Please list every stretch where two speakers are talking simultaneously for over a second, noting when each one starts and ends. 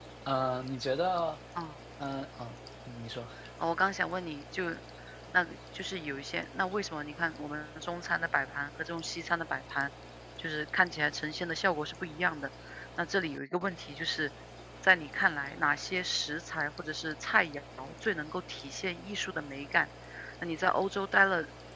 none

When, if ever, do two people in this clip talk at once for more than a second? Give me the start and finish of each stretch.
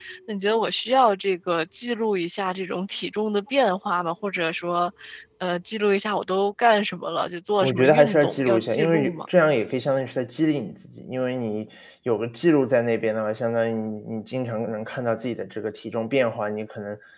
7.6-9.2

